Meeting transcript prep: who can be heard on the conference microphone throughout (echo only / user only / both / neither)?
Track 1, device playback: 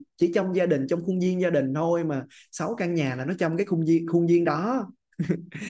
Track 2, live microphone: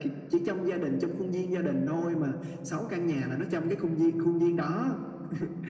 echo only